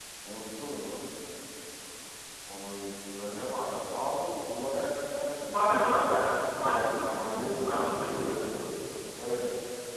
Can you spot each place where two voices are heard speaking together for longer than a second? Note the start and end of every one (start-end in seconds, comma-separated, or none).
5.5-8.5